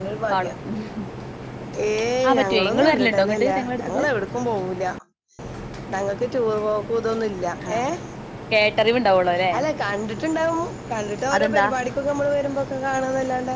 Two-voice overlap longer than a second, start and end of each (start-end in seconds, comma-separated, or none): 2.3-4.0